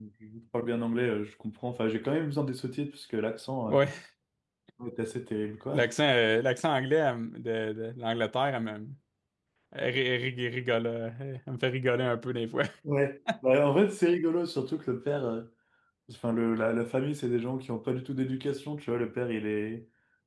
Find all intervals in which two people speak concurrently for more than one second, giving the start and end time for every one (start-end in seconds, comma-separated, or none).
none